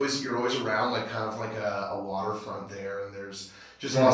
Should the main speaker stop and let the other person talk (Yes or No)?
Yes